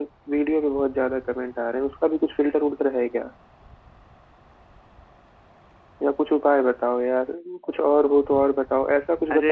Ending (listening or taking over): taking over